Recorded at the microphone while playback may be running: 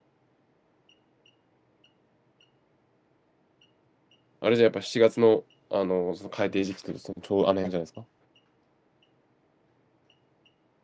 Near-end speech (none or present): present